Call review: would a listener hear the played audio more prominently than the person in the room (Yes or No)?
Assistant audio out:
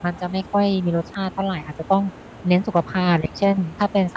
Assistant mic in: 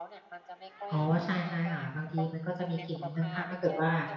No